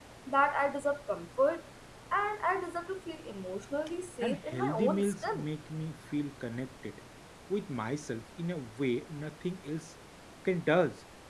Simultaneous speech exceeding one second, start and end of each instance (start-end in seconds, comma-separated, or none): 4.2-5.5